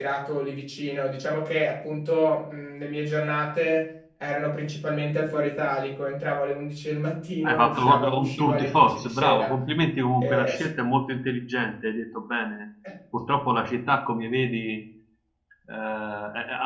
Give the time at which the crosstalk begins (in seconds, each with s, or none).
7.4 s